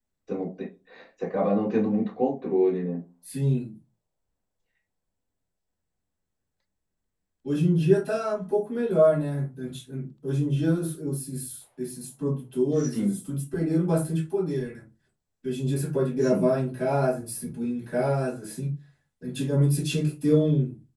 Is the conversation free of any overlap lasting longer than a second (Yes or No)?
Yes